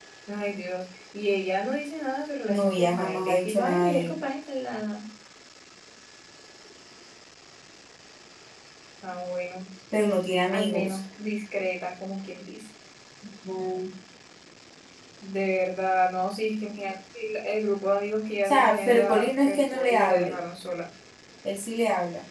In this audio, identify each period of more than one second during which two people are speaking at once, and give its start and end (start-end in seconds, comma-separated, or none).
2.5-4.2, 18.4-20.4